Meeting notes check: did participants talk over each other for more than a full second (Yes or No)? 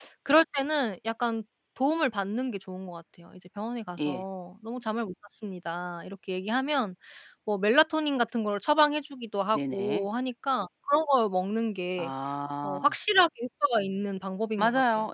No